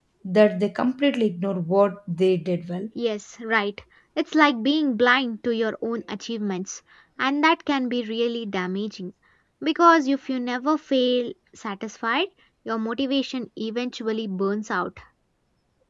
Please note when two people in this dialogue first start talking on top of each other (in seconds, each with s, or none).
none